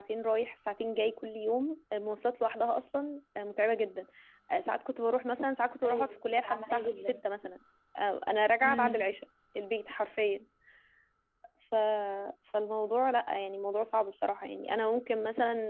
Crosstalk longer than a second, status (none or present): present